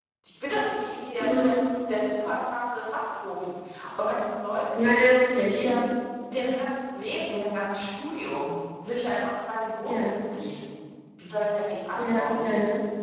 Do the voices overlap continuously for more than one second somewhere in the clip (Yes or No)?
No